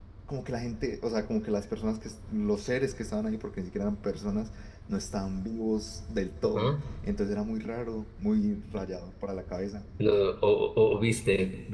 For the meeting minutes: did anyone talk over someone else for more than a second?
No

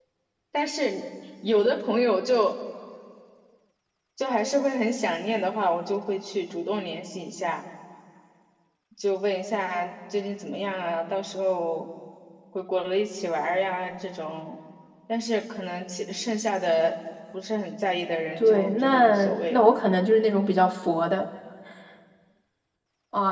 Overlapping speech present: Yes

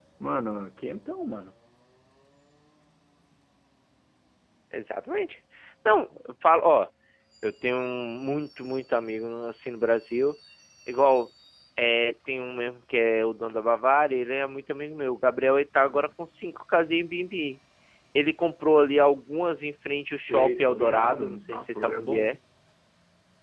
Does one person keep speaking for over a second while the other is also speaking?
Yes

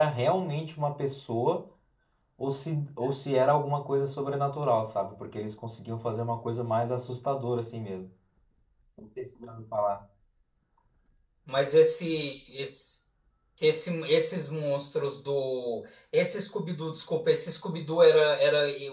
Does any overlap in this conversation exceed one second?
No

